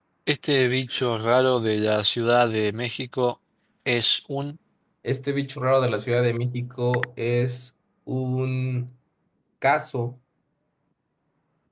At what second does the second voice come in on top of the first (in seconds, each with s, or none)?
none